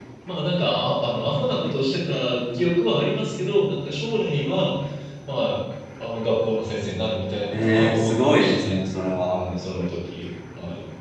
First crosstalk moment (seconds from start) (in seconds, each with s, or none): 7.5 s